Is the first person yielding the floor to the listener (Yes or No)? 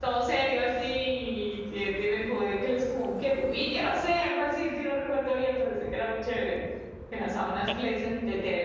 No